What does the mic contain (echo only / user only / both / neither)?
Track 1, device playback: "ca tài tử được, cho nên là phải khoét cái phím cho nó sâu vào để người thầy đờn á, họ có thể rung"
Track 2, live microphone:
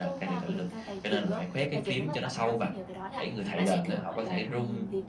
both